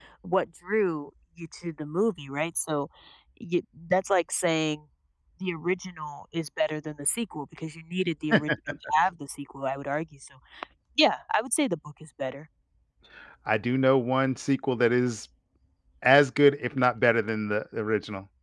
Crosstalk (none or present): none